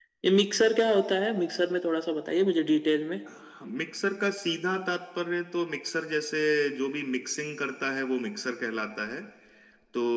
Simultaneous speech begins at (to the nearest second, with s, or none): none